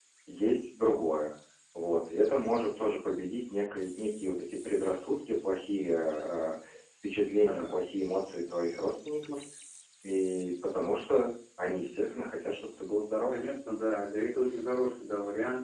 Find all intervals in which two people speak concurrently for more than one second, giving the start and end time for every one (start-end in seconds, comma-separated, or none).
none